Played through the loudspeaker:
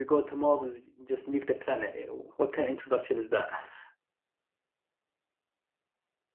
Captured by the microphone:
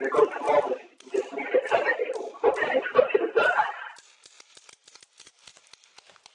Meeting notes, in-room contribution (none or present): none